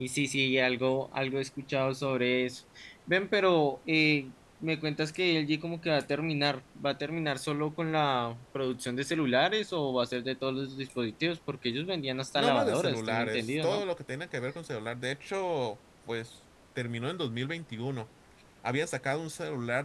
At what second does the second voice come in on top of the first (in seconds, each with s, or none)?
12.3 s